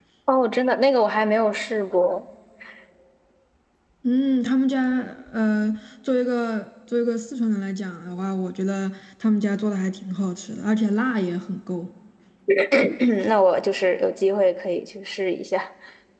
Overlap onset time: none

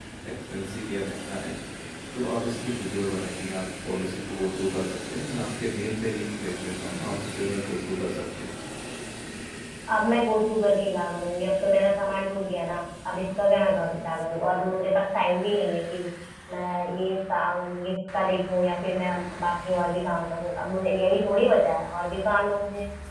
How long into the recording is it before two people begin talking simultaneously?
none

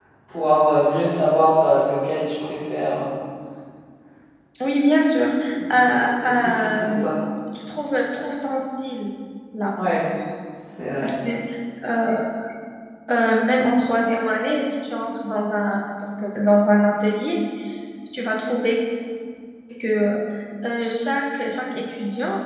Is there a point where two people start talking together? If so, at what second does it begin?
6 s

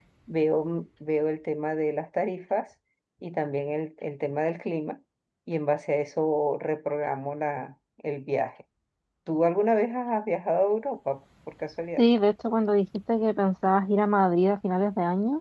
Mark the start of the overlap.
none

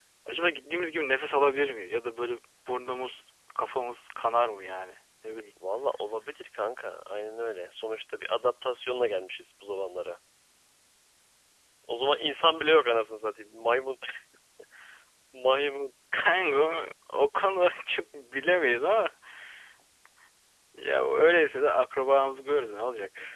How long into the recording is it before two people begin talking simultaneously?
none

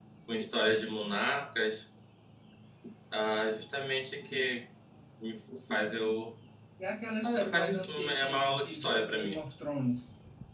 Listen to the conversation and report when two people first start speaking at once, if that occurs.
7 s

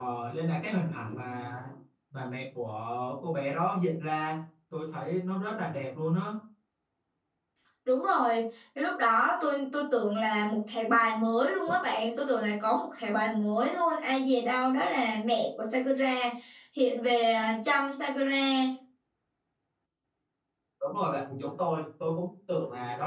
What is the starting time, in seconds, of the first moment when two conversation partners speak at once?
none

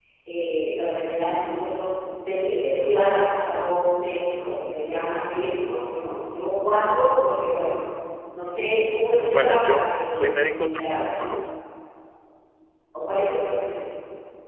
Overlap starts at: 9 s

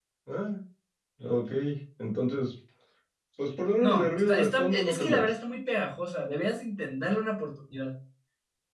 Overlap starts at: 4 s

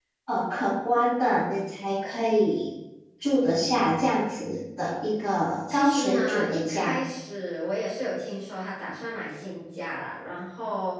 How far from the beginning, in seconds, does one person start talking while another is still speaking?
6 s

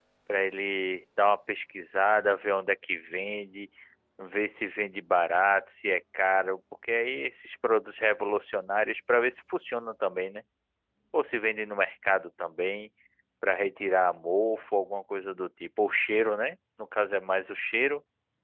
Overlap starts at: none

